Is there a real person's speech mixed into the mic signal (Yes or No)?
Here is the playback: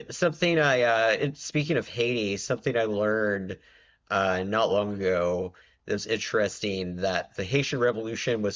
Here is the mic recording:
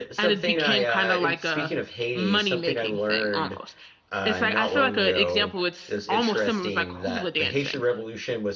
Yes